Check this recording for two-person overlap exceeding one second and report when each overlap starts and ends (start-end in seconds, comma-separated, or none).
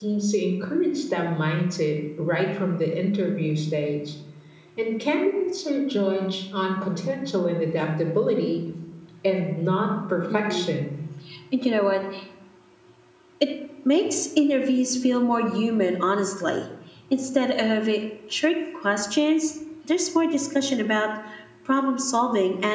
none